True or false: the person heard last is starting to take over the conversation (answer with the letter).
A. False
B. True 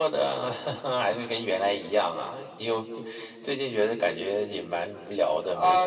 B